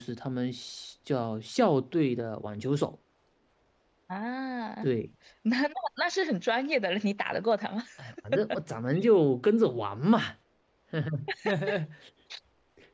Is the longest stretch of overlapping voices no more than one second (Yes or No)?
Yes